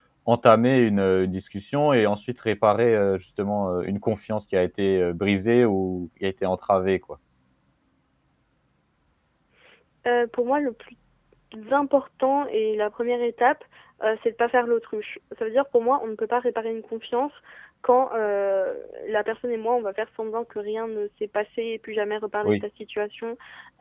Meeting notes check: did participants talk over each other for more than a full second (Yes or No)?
No